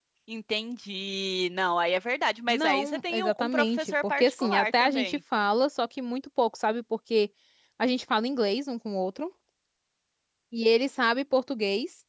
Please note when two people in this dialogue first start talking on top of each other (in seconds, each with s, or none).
2.5 s